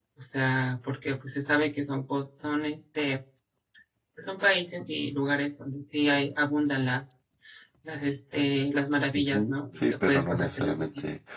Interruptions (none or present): present